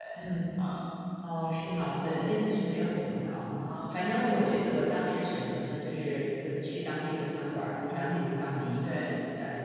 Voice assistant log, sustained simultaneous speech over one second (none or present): none